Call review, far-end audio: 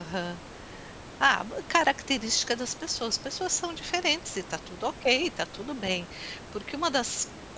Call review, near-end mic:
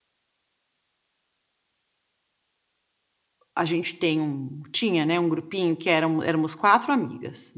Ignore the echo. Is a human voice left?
Yes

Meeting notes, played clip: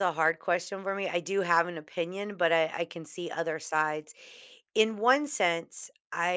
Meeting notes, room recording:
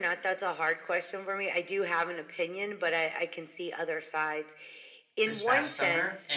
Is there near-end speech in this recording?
Yes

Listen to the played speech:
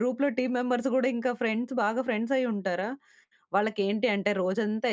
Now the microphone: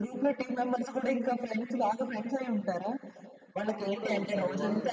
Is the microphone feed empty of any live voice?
No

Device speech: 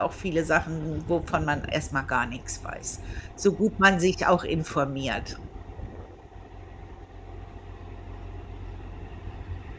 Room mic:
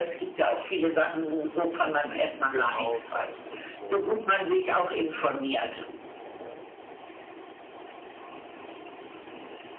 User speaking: Yes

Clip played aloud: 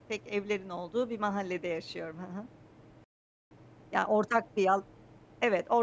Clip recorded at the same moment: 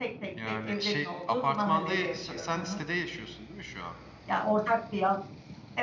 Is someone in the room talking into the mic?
Yes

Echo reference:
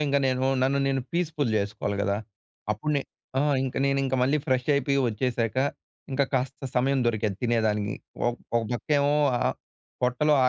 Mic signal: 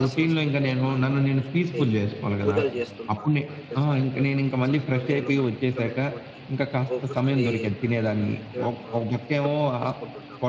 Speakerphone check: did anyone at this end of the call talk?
Yes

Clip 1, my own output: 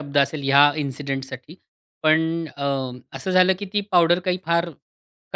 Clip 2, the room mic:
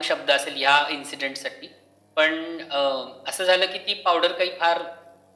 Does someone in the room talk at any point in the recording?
No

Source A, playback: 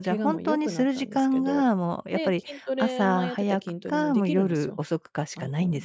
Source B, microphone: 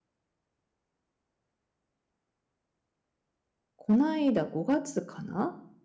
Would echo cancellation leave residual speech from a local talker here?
Yes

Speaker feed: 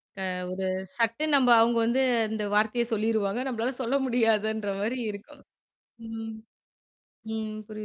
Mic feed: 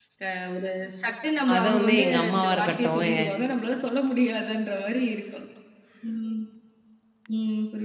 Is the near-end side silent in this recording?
No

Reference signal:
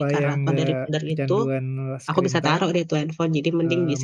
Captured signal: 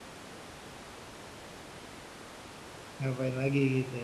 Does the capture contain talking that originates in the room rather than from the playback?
Yes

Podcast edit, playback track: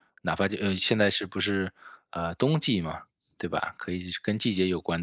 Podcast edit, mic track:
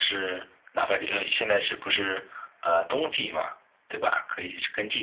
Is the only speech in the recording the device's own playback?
Yes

